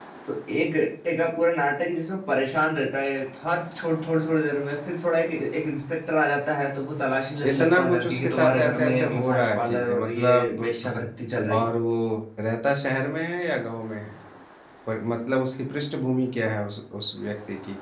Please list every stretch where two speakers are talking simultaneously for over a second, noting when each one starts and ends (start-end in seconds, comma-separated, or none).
7.5-10.7